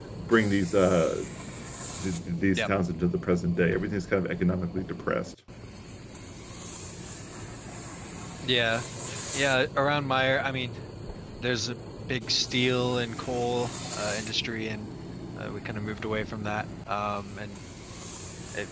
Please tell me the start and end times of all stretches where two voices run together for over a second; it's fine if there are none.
none

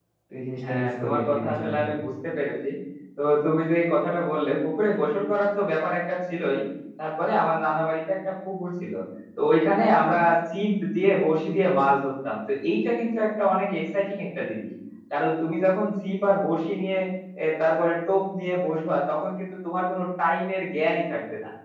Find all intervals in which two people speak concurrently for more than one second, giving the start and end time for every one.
0.7-1.9

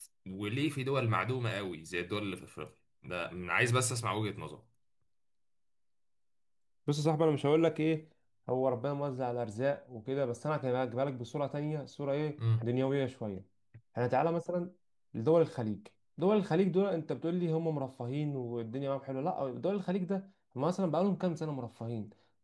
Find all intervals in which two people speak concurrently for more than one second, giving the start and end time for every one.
none

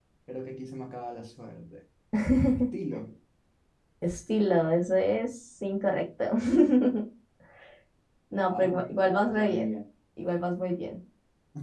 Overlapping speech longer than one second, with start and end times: 8.4-9.7

